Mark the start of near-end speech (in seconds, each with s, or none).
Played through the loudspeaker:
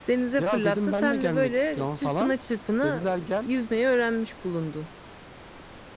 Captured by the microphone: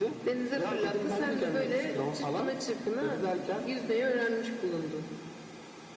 none